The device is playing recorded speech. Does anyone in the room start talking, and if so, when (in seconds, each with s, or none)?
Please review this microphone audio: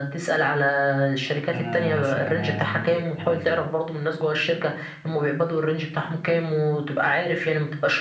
1.5 s